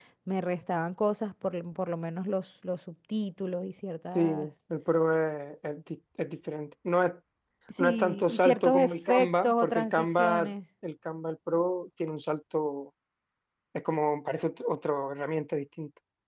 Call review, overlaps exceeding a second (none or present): present